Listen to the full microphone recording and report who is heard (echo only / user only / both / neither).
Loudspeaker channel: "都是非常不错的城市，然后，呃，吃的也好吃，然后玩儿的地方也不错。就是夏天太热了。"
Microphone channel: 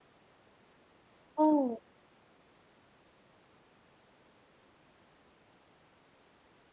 user only